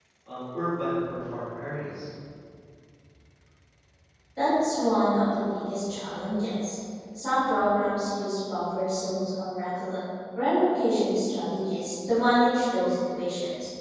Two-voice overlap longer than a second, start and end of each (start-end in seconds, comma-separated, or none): none